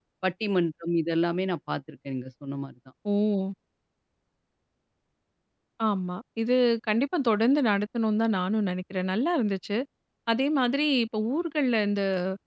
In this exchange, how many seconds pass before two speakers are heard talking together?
none

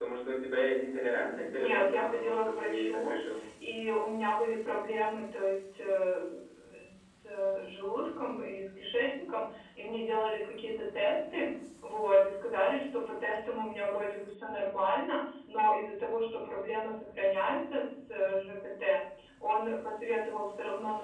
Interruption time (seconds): 1.5 s

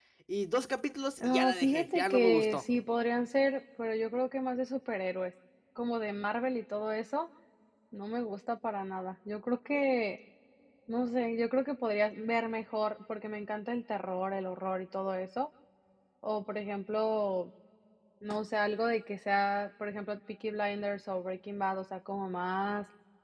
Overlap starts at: 1.2 s

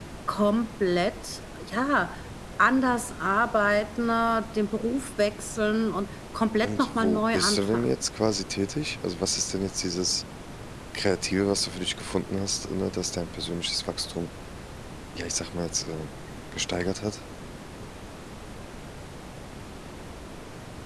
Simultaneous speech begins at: 6.6 s

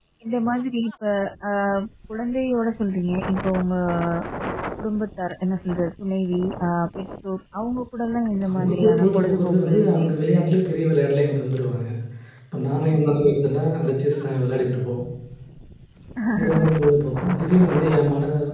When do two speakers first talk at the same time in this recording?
8.5 s

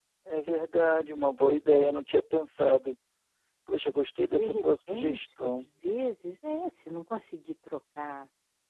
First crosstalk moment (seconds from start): 4.3 s

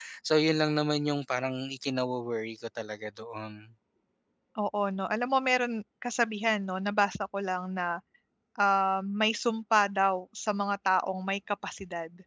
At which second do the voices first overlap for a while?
none

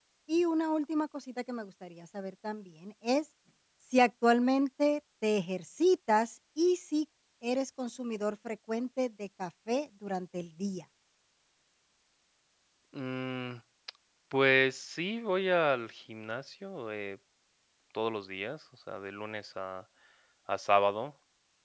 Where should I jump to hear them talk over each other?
none

